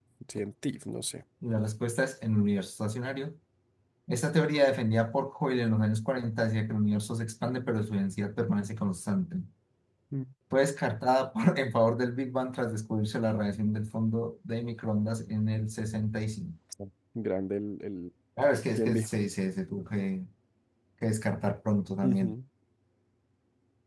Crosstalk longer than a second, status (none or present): none